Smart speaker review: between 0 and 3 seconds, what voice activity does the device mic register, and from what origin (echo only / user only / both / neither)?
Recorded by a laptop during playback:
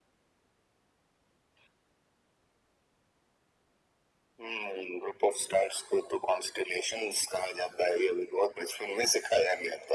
neither